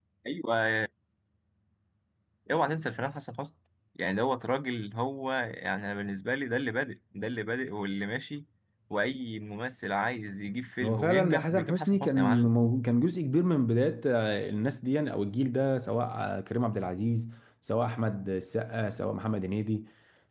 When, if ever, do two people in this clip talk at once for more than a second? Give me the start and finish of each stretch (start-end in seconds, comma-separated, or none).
10.8-12.5